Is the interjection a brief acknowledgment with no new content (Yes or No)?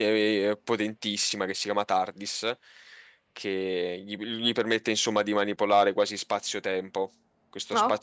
Yes